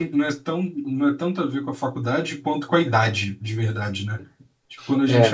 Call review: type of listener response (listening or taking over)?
listening